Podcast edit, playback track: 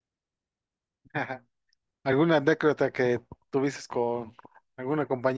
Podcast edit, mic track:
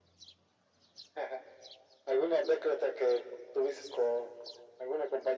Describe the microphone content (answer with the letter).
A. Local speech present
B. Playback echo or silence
B